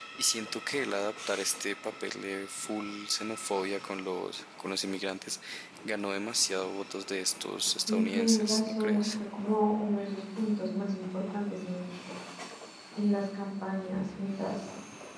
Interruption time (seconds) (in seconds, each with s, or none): 7.9 s